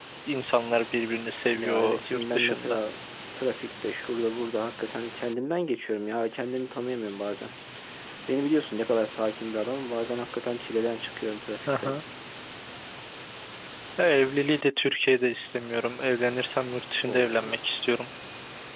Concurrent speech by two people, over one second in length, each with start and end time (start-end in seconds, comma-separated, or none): 1.6-2.8